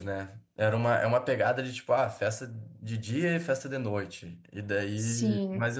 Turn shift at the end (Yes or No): No